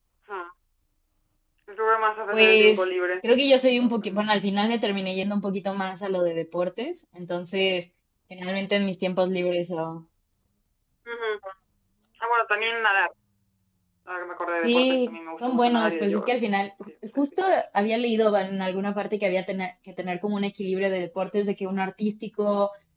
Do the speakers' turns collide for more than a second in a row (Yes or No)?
Yes